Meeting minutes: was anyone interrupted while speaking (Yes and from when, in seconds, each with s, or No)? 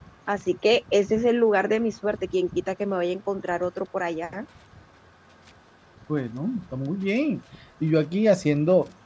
No